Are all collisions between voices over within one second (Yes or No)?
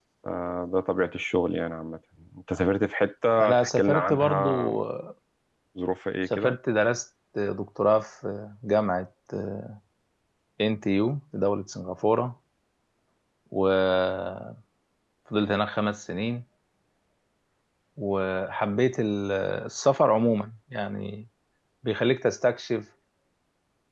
No